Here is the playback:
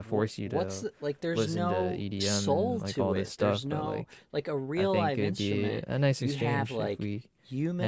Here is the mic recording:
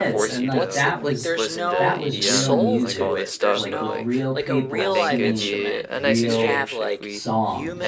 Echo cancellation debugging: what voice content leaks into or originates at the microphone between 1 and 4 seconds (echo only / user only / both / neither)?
both